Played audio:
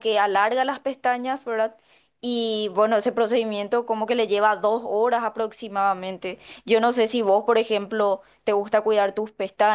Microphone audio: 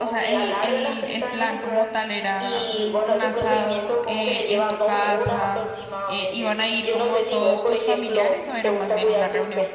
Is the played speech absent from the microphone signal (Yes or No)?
No